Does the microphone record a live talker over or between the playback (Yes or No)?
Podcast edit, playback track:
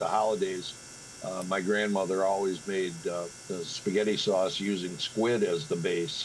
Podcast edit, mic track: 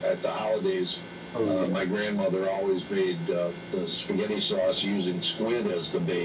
Yes